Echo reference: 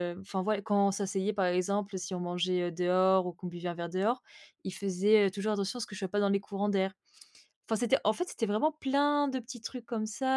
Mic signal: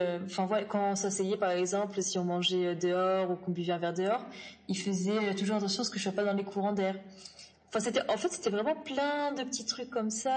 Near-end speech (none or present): none